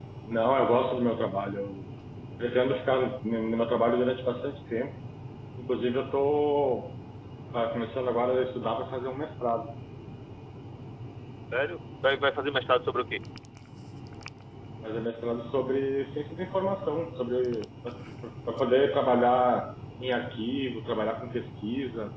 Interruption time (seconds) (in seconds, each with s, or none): none